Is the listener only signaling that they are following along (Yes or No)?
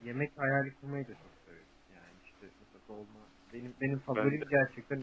Yes